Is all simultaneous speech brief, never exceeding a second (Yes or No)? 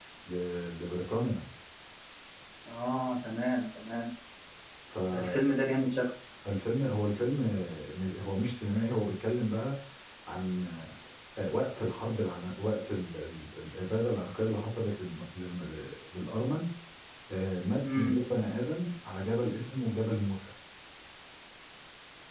Yes